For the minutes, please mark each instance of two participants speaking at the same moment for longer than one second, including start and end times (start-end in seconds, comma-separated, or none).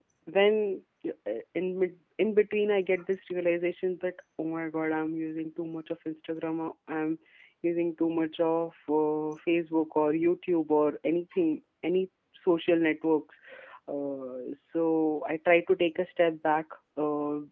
none